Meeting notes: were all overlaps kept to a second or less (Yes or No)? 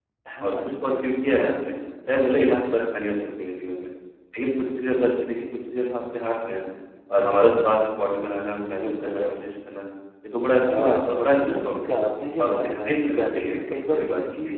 No